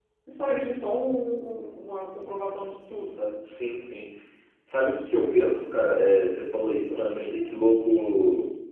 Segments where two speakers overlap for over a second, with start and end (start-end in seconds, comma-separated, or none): none